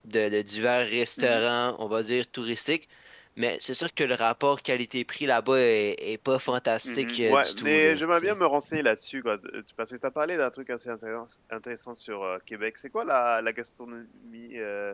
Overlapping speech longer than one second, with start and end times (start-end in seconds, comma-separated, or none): 6.9-8.3